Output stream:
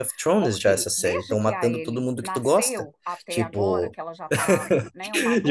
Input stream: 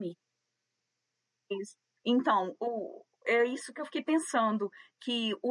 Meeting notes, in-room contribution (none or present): present